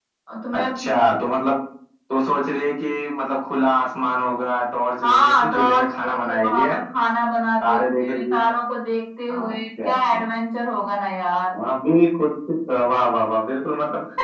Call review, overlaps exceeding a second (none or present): present